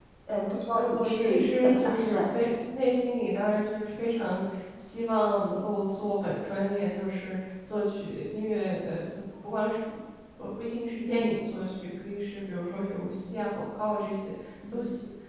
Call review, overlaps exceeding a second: present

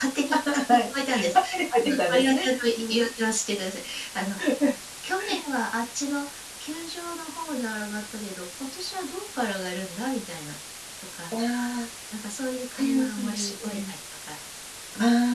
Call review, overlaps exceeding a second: present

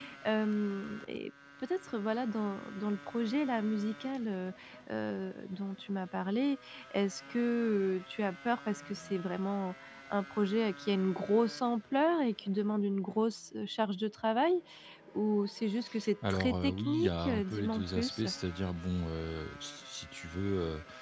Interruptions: present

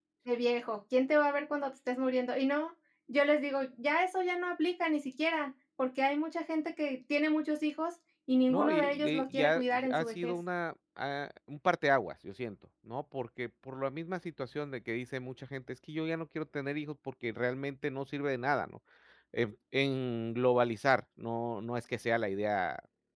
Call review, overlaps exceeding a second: present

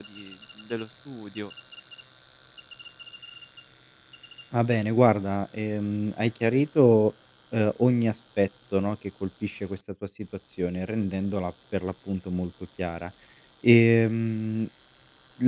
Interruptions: none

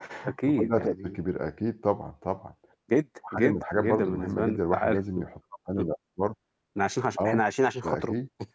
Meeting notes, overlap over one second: present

